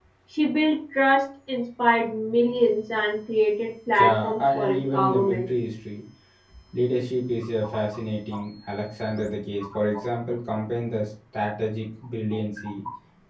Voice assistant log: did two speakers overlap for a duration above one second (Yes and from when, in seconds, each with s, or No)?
Yes, from 4.0 s